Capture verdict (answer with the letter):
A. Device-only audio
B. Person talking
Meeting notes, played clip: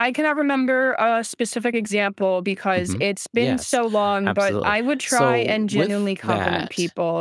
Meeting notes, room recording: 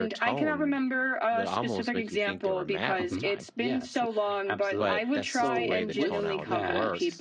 B